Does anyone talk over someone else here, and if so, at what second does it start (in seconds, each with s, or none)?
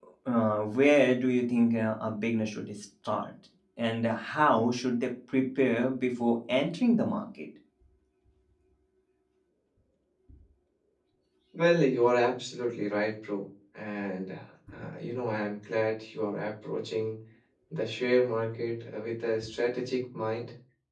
none